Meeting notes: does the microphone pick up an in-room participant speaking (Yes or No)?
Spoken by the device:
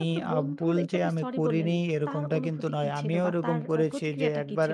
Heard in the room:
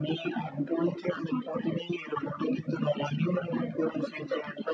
No